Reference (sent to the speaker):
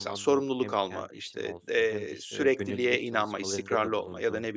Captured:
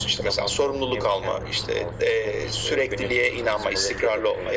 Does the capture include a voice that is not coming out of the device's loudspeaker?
No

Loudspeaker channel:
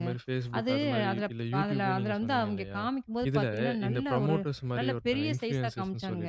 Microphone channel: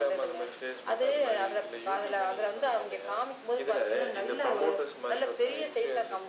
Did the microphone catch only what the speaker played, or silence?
Yes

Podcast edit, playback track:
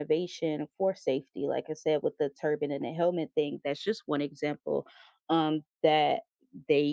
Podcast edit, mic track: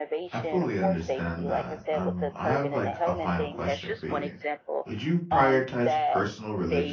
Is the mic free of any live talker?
No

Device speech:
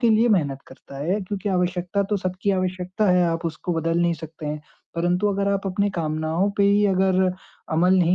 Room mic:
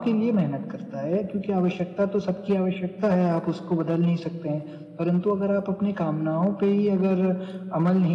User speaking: No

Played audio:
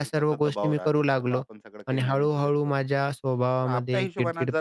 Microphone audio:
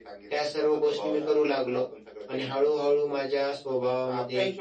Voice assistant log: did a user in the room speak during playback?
No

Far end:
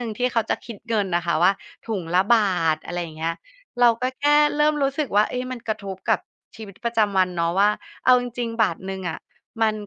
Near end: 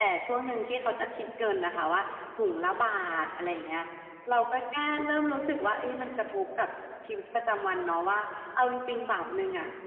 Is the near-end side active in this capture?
No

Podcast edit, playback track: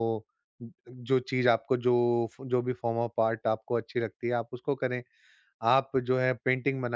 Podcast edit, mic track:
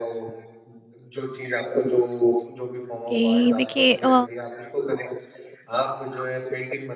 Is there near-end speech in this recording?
Yes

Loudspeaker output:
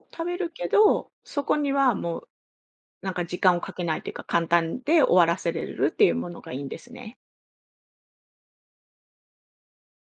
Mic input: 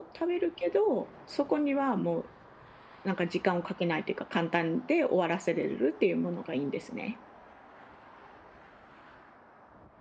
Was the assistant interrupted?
No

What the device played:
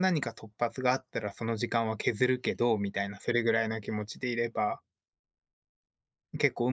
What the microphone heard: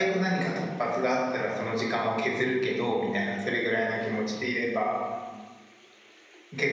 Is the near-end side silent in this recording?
Yes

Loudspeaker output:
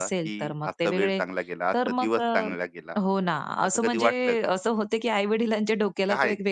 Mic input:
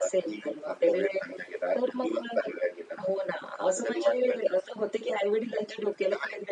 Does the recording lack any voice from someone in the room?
Yes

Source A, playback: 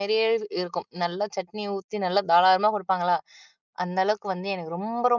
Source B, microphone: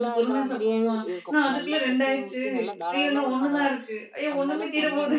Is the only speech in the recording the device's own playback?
No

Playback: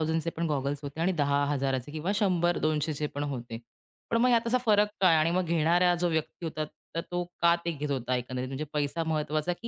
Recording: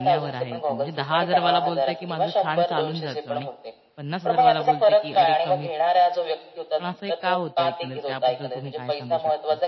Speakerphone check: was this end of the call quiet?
No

